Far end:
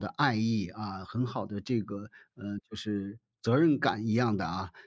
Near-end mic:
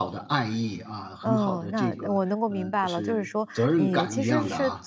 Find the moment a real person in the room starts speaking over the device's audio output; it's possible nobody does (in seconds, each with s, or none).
1.2 s